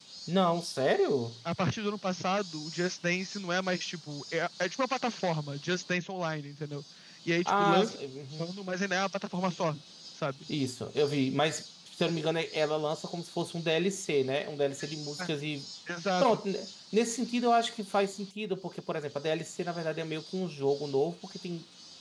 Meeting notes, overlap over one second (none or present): none